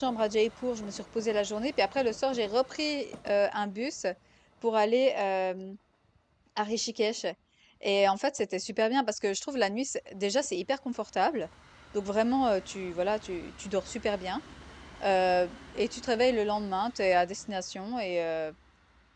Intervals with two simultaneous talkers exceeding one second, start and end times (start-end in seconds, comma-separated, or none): none